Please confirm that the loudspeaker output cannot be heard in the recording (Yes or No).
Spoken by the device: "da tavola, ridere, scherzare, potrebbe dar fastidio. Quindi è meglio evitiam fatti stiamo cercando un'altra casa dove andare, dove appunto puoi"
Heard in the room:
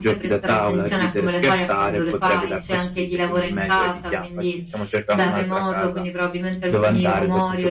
No